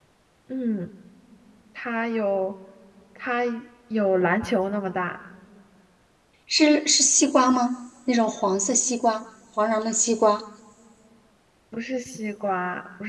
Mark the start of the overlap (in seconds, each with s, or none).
none